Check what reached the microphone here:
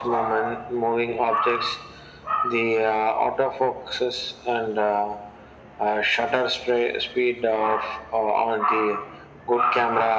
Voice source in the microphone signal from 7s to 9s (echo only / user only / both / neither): echo only